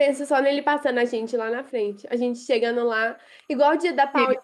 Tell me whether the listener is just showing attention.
Yes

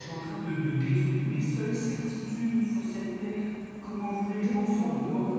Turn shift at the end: Yes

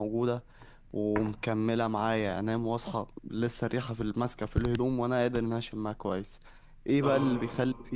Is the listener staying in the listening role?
Yes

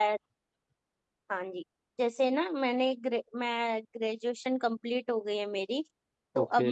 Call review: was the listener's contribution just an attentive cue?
Yes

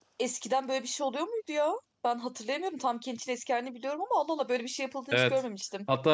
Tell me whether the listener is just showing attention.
No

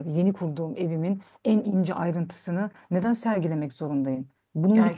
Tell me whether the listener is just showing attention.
Yes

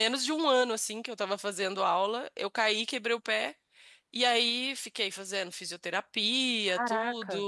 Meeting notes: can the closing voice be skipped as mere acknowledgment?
Yes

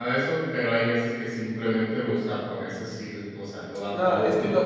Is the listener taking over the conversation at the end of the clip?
Yes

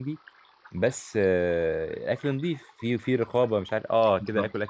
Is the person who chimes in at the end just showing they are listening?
Yes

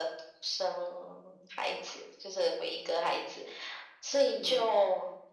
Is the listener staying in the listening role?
Yes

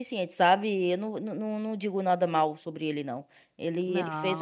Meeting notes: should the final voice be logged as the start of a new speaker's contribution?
No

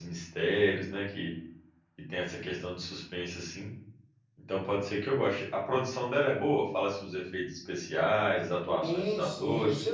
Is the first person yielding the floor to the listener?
Yes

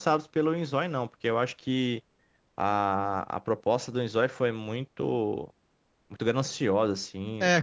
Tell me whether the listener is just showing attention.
No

